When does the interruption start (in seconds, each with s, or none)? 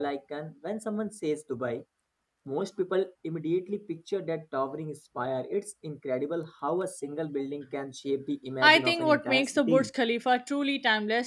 8.6 s